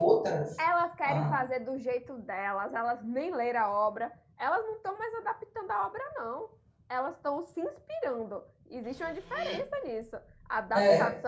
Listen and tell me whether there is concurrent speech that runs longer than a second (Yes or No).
No